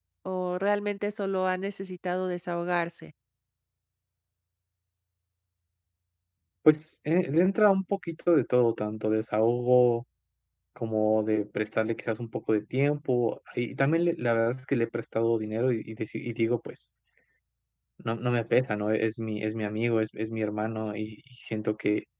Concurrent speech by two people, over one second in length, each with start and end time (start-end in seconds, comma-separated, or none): none